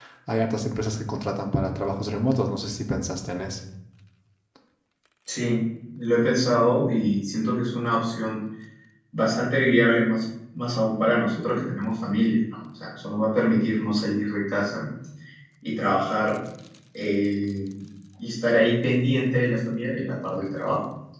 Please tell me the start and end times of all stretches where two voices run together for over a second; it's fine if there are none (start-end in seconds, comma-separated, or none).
none